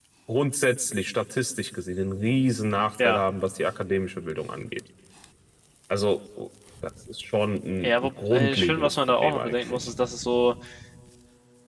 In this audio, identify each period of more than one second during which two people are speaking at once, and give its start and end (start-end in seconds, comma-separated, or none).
7.8-9.9